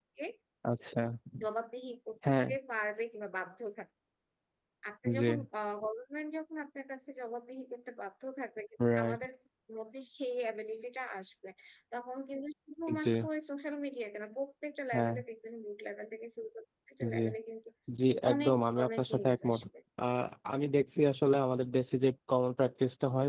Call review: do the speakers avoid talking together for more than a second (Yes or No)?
No